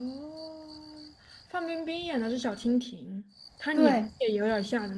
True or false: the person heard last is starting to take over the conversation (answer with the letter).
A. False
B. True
A